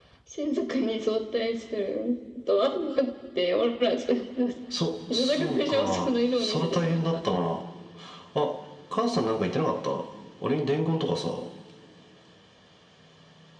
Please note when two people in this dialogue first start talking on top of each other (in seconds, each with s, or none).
5.1 s